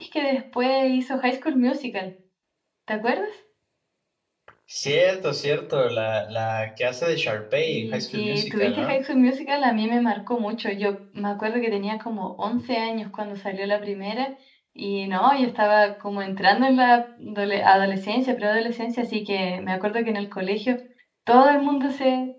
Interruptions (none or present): present